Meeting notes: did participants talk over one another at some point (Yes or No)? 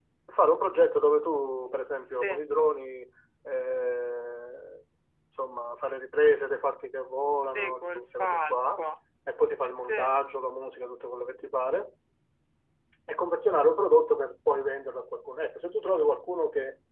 Yes